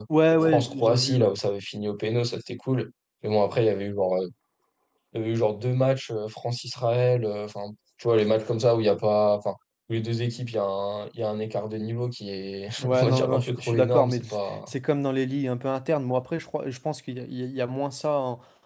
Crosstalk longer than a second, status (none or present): present